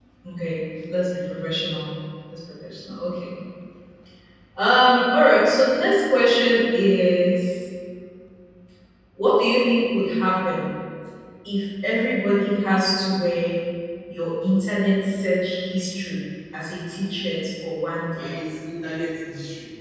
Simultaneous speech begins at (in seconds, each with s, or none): none